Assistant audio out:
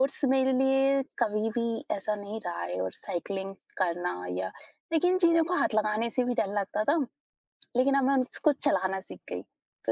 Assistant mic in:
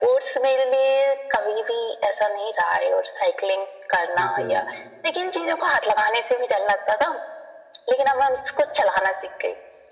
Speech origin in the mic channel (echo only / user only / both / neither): both